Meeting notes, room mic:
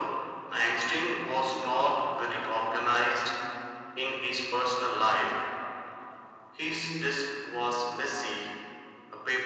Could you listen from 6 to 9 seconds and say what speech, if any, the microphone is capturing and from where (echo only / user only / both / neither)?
echo only